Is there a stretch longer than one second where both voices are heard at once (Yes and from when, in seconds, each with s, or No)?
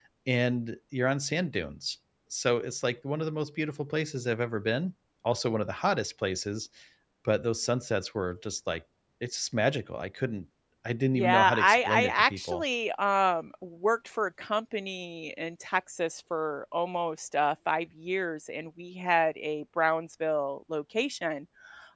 Yes, from 11.2 s